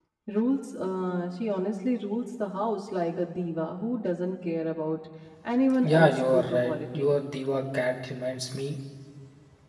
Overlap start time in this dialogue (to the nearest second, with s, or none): 6 s